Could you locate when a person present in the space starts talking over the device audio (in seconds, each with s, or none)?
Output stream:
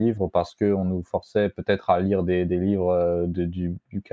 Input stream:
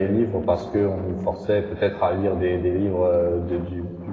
none